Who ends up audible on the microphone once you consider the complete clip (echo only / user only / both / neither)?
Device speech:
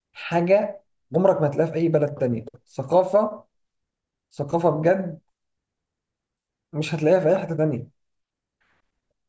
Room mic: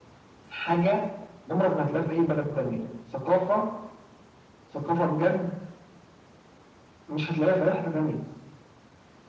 echo only